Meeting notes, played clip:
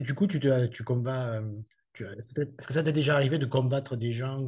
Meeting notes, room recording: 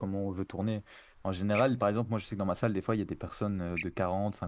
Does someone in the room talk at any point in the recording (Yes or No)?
Yes